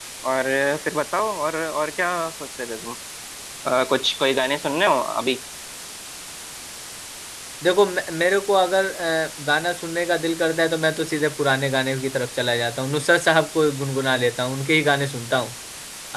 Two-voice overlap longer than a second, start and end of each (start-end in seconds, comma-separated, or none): none